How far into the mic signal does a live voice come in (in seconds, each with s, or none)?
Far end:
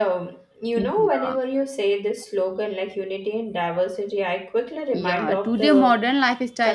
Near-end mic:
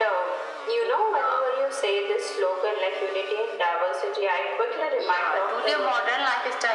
none